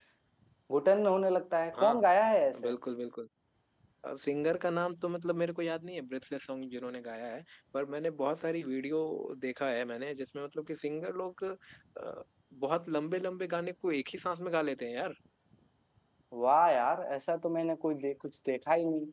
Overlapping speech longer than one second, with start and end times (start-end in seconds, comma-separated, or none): none